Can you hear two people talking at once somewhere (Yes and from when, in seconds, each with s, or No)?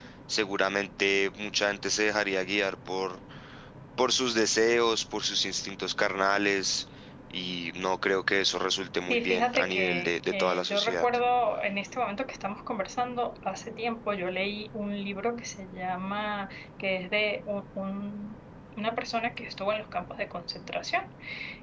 Yes, from 9.1 s